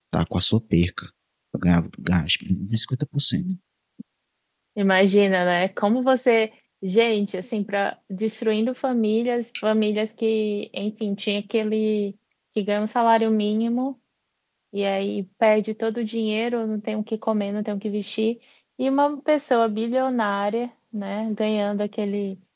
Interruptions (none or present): none